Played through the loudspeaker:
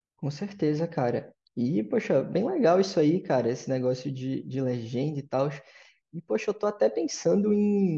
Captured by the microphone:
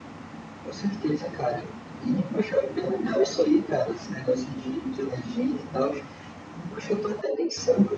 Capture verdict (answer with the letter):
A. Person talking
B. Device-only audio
B